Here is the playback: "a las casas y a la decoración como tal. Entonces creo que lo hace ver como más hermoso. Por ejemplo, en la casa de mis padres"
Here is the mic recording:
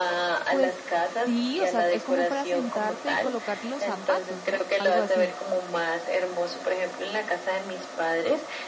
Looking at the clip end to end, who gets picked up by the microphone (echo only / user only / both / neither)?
both